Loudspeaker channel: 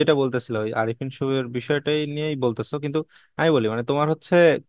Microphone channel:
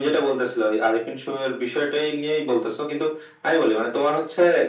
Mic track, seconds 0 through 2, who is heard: echo only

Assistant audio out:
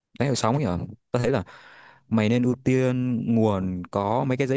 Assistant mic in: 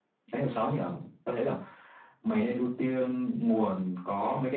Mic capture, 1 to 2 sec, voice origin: echo only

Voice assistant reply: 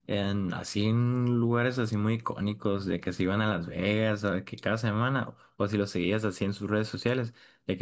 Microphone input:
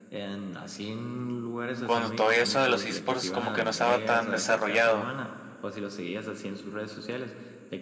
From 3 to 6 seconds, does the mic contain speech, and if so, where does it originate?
both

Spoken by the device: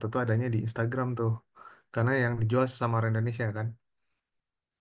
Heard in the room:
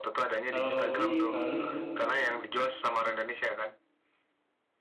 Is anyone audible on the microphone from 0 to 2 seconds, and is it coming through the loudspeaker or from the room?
both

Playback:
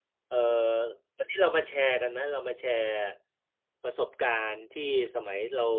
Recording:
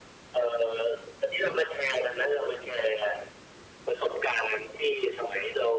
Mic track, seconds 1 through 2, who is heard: echo only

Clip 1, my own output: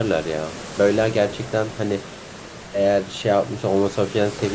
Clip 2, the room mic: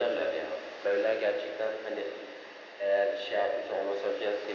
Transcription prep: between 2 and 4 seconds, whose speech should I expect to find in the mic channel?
echo only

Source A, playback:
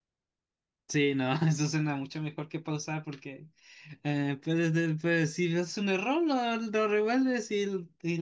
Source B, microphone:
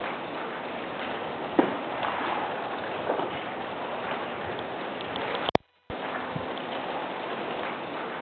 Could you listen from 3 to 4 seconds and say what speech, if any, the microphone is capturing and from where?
neither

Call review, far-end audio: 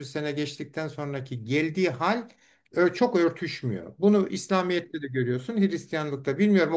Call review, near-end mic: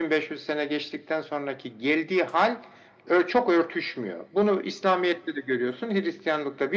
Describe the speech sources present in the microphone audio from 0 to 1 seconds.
echo only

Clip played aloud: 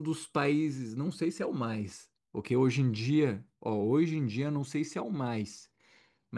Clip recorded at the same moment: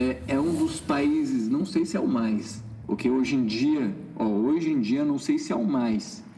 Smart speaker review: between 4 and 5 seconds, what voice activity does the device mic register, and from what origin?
echo only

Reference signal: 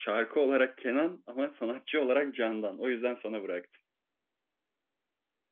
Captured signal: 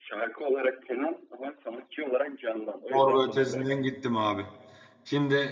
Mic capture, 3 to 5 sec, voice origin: both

